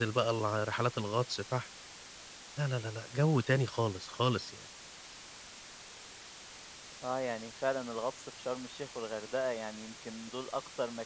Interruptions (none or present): none